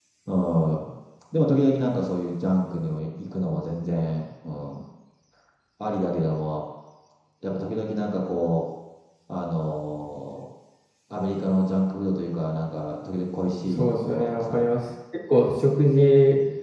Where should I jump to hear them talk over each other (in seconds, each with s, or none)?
13.7 s